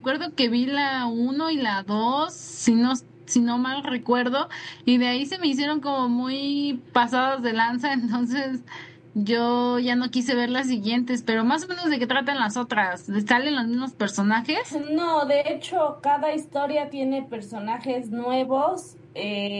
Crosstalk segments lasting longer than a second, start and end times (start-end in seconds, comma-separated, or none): none